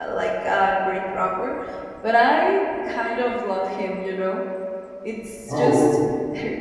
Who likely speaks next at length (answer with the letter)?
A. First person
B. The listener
A